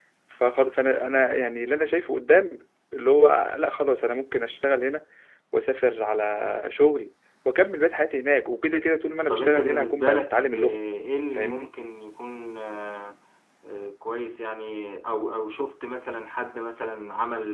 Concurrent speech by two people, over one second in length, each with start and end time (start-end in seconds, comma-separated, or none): 9.3-10.5